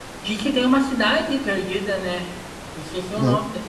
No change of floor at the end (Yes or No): No